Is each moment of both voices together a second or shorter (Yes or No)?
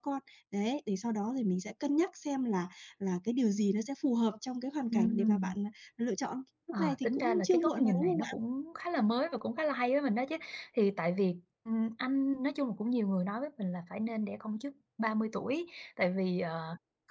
No